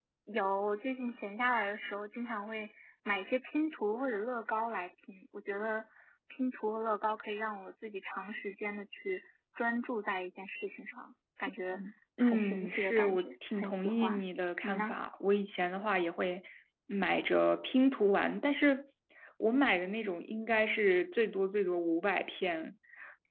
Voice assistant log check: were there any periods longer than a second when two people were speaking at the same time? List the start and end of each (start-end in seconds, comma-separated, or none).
12.2-14.2